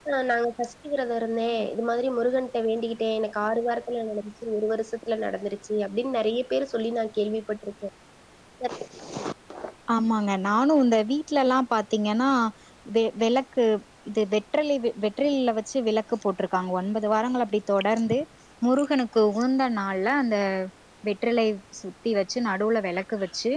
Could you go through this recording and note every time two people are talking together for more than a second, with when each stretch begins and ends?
none

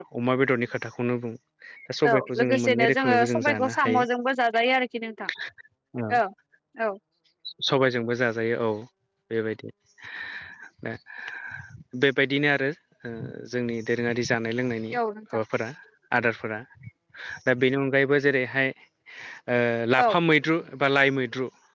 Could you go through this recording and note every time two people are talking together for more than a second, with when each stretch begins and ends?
2.1-4.0

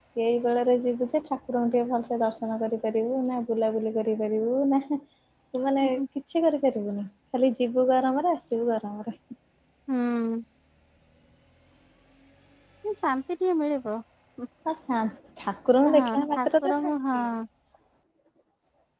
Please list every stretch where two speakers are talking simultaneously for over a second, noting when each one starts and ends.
15.8-17.2

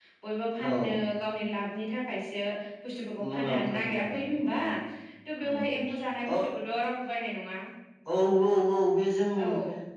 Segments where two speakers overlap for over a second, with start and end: 3.3-4.6

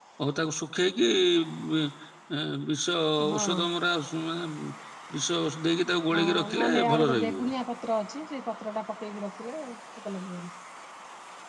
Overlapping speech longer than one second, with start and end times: 6.1-7.5

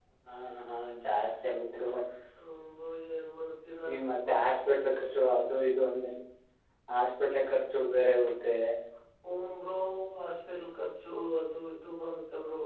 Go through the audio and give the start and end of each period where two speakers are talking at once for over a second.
none

